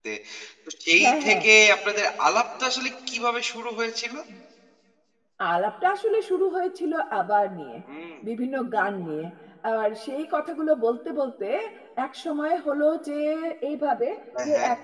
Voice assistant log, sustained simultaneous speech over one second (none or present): none